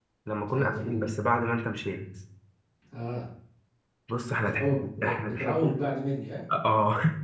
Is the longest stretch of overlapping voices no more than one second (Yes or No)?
No